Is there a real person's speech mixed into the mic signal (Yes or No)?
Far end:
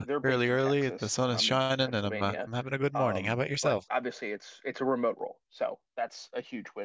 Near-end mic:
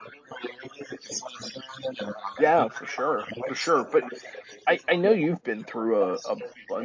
Yes